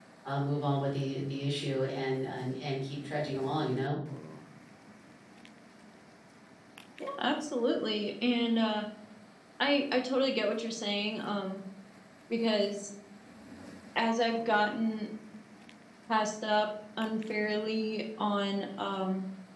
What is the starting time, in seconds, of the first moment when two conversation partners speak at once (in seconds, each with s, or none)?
none